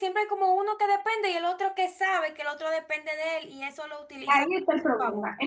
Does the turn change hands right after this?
Yes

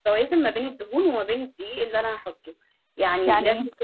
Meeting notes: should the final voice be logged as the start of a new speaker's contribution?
No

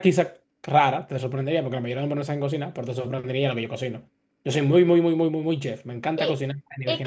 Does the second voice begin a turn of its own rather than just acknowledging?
Yes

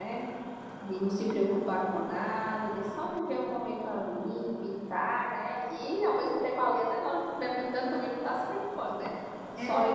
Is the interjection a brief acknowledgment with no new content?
Yes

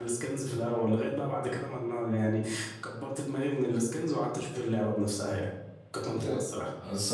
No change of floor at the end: No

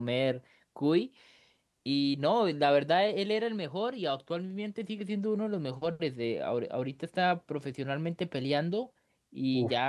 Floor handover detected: No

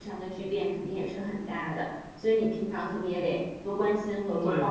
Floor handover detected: Yes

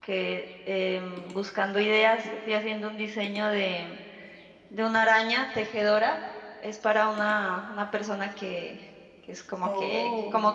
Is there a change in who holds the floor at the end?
No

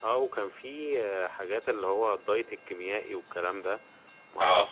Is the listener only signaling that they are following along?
Yes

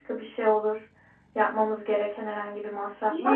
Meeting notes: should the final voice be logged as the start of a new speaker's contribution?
Yes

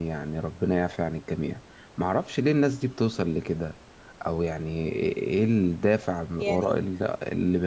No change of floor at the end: Yes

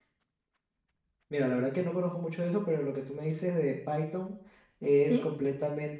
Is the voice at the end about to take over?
No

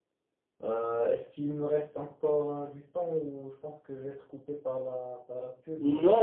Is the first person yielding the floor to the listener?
Yes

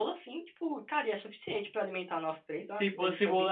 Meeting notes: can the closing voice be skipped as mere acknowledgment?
No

